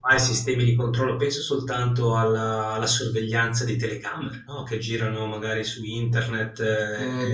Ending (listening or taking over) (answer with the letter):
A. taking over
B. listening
A